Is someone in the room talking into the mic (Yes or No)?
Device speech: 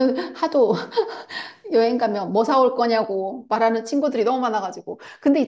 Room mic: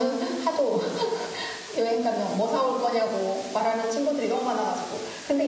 No